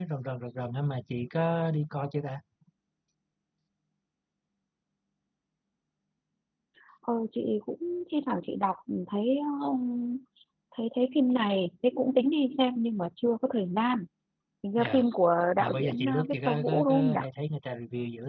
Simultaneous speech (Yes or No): Yes